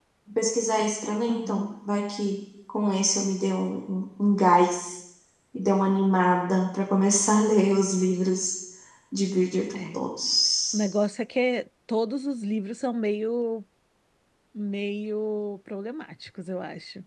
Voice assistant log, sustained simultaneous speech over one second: none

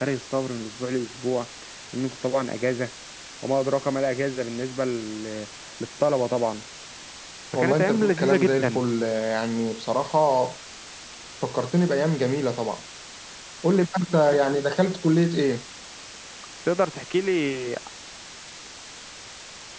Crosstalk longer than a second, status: present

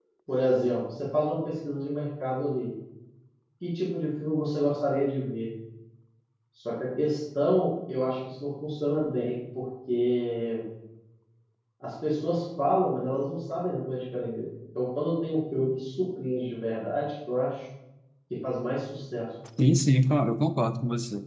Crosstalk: none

